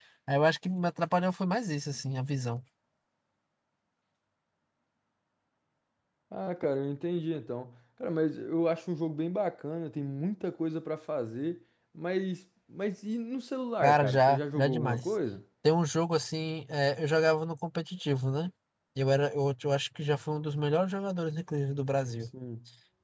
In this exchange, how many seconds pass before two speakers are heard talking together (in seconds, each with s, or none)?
13.8 s